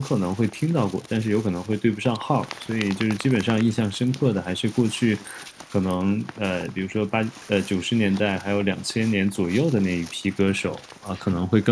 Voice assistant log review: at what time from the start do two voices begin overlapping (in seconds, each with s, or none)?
none